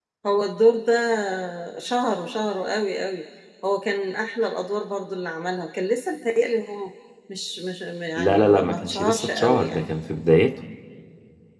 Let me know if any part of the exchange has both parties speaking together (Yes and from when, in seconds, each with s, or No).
Yes, from 8.2 s